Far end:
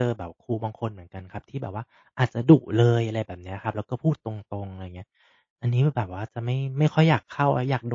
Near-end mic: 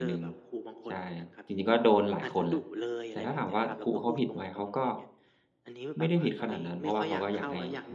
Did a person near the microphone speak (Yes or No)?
Yes